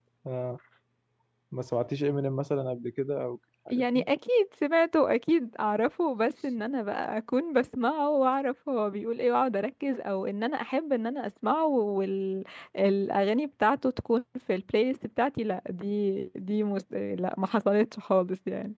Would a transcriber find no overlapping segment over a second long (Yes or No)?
Yes